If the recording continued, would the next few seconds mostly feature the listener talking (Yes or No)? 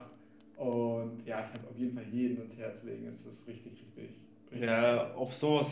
Yes